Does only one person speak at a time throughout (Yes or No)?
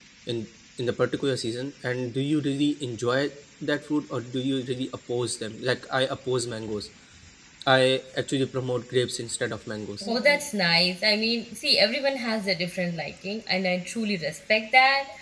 Yes